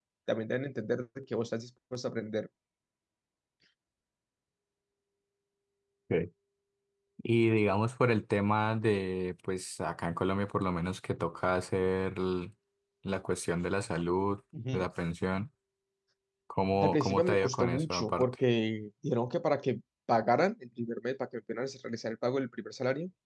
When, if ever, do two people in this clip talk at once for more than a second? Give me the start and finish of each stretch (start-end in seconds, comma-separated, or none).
16.8-18.3